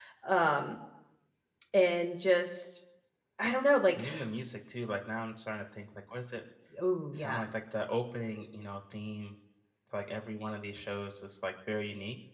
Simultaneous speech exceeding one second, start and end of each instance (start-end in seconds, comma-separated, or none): none